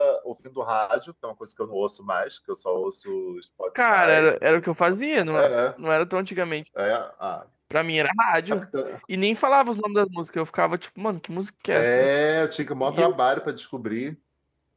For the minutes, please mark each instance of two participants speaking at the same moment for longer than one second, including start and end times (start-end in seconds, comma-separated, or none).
none